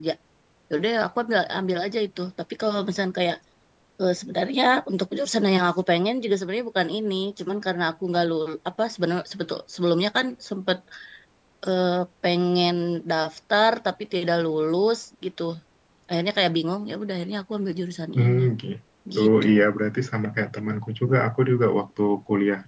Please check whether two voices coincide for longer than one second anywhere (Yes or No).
No